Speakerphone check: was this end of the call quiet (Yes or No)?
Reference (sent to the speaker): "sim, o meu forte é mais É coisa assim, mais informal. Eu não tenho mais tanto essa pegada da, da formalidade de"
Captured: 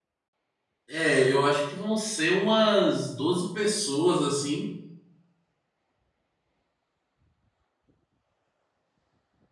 No